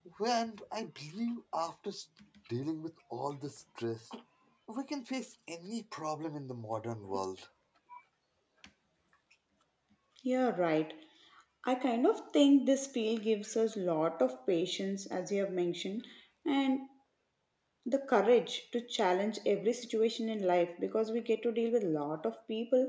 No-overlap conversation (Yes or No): Yes